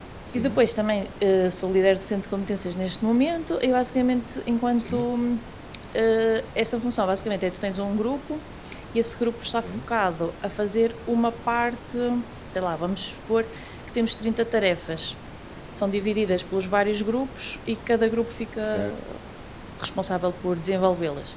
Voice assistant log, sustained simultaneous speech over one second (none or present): none